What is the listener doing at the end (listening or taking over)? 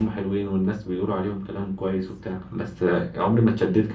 listening